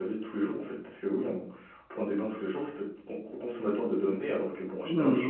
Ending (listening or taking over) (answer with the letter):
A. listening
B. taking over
B